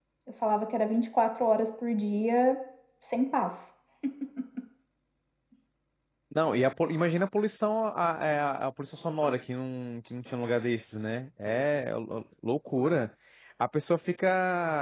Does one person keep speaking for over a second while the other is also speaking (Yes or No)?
No